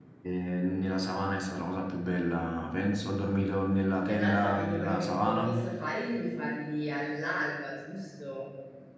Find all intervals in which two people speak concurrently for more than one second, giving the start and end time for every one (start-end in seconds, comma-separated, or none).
4.1-5.5